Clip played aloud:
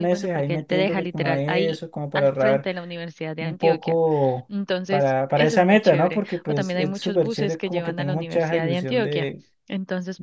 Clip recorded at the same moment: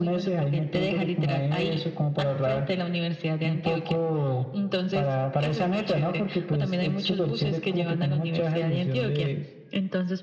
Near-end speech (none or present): none